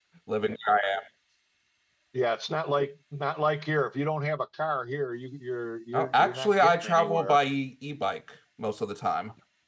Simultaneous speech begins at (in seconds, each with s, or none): 5.9 s